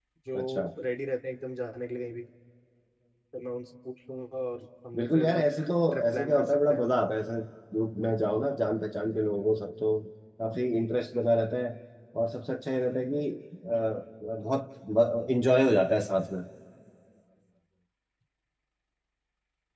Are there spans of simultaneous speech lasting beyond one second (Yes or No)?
Yes